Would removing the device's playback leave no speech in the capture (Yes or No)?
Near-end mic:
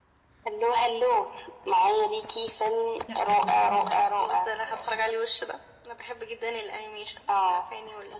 No